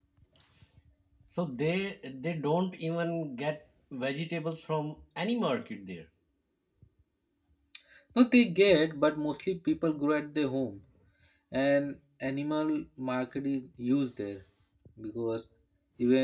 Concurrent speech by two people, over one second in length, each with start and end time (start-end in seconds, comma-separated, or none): none